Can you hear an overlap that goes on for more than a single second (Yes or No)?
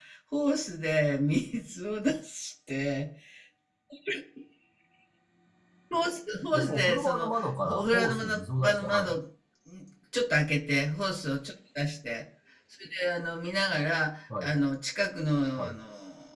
Yes